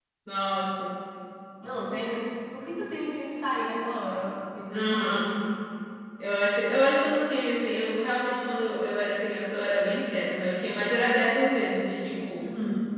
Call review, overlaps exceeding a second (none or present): none